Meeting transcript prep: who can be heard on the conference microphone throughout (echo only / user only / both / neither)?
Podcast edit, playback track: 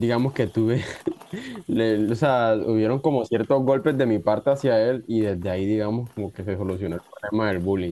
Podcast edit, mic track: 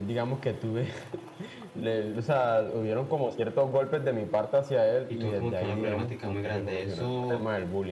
both